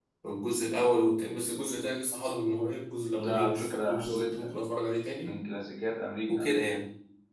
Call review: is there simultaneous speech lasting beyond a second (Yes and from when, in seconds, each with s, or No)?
Yes, from 3.2 s